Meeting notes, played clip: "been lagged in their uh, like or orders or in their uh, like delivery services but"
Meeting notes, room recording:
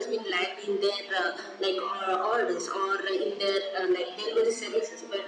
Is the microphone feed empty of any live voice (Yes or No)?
Yes